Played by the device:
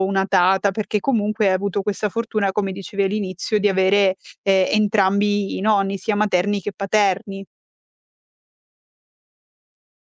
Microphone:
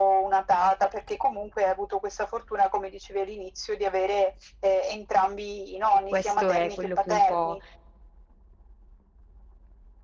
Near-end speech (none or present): present